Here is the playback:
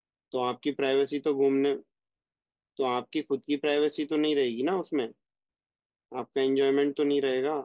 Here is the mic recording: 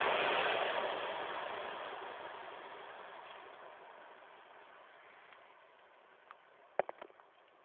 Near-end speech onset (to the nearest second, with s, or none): none